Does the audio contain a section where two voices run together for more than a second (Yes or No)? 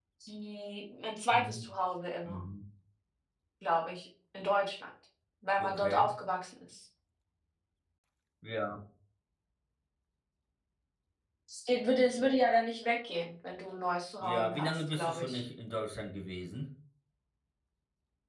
Yes